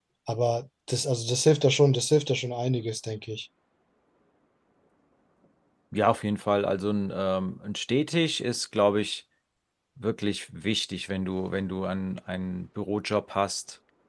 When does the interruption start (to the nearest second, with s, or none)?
none